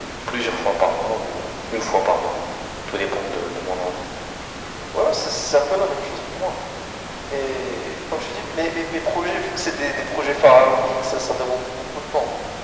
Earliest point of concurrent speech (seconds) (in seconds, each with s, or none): none